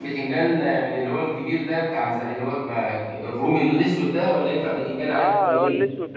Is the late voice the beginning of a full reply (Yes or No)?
Yes